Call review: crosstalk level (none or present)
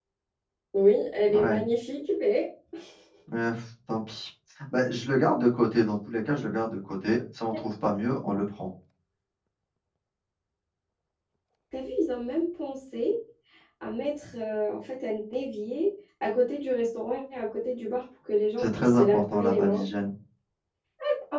present